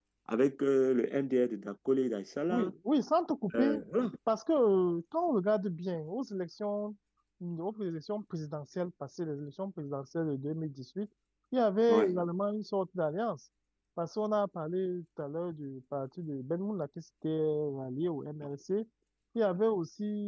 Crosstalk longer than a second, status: none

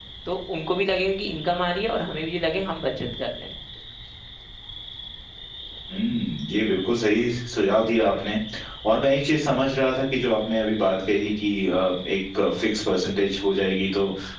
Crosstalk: none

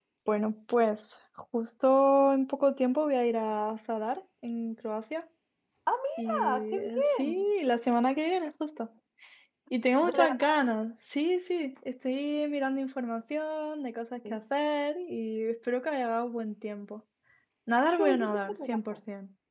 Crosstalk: present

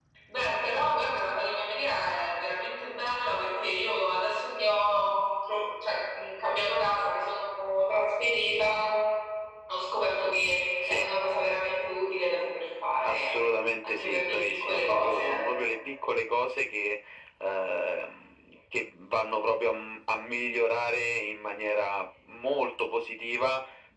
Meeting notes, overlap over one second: present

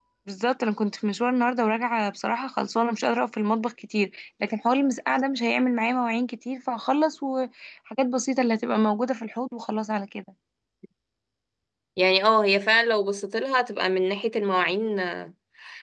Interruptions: none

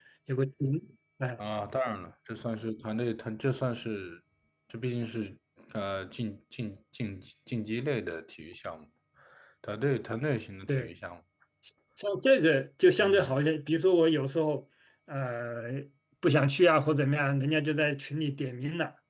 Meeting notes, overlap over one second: none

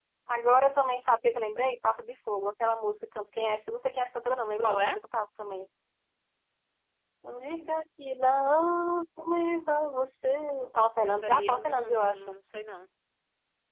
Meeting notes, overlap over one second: present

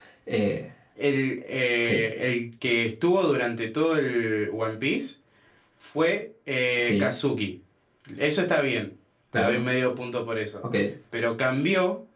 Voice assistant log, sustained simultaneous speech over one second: none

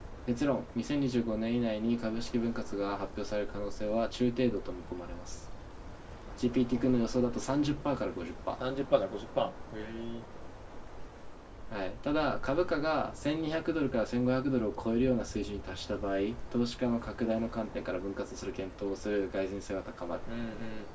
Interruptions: none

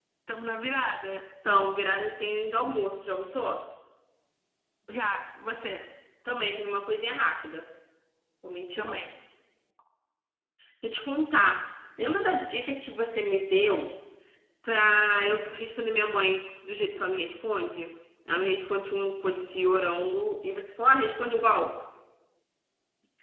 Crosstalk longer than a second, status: none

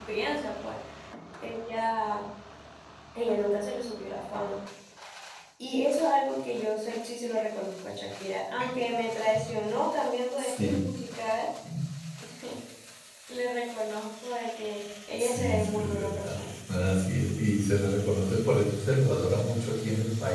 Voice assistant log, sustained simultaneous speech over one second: present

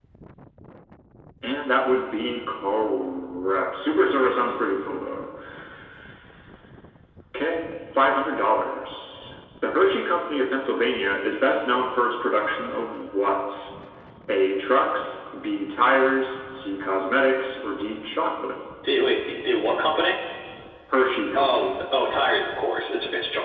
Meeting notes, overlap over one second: none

